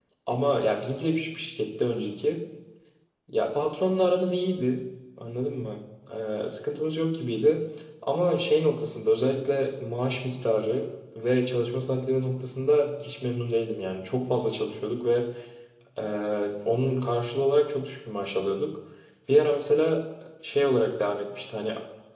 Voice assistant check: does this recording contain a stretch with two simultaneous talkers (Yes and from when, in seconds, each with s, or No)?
No